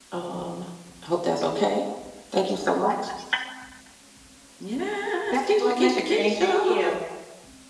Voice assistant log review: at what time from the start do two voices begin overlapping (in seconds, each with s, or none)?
5.3 s